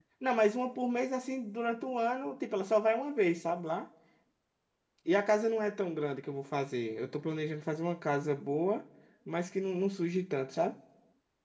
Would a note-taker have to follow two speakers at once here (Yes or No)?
No